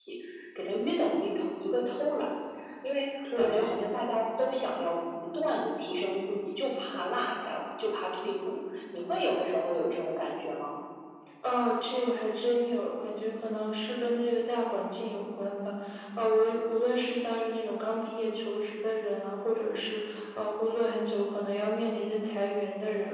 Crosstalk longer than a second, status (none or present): none